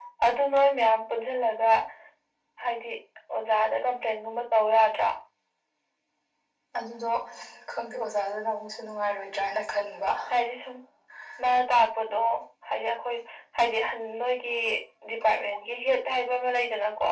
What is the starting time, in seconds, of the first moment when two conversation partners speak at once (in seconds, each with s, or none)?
none